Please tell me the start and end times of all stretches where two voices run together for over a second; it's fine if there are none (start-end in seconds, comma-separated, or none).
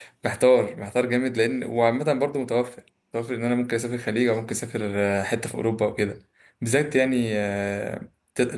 none